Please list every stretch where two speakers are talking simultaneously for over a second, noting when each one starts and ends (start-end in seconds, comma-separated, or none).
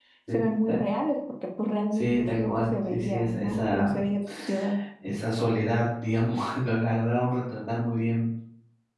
1.9-3.9